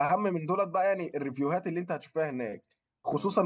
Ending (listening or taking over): listening